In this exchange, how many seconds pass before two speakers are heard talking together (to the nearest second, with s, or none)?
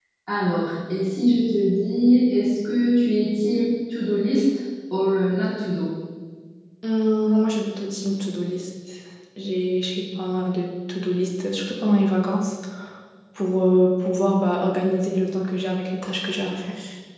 none